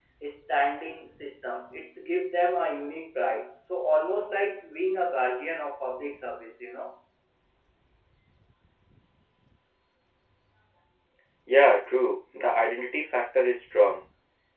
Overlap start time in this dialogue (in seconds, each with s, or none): none